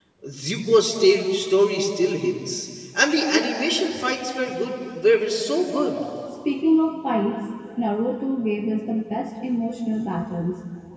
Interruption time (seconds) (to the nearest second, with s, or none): none